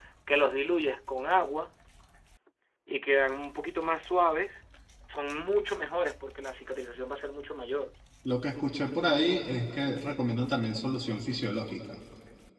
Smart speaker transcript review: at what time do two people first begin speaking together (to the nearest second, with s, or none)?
none